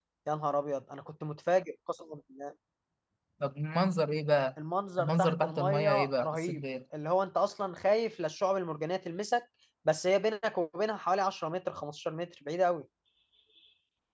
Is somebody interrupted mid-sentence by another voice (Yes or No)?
Yes